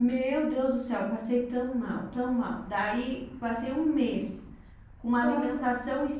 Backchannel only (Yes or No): Yes